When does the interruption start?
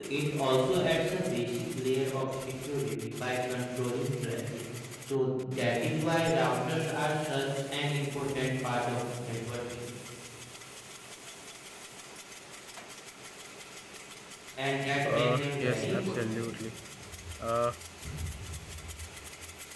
15.0 s

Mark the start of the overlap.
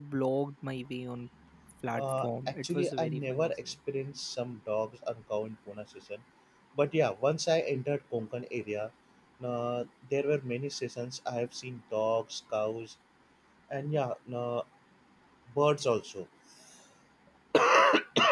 1.9 s

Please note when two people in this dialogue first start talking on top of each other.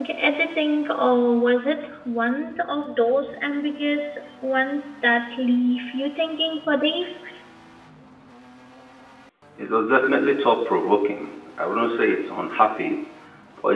none

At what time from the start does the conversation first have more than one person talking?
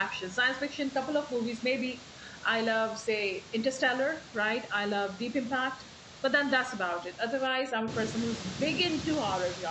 none

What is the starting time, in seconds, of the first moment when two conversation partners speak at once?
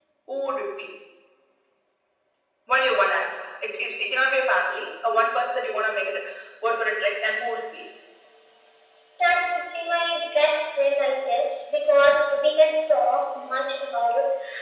none

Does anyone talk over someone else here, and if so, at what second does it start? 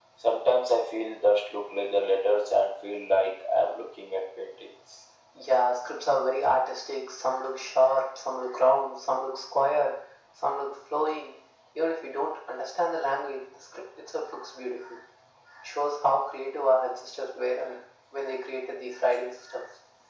none

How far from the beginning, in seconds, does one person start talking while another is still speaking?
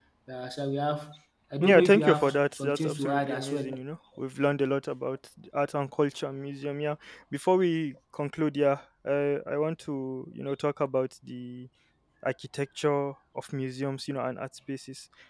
1.6 s

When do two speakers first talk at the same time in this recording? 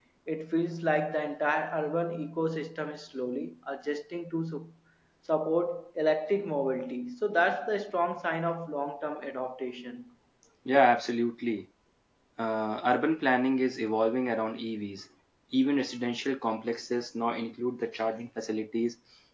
none

